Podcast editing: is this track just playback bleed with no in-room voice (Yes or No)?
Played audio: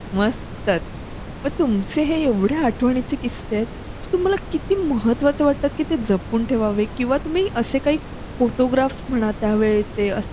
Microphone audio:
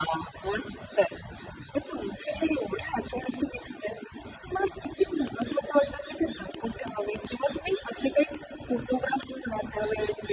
Yes